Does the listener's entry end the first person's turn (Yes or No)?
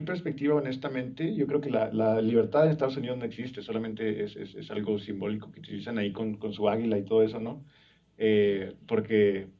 No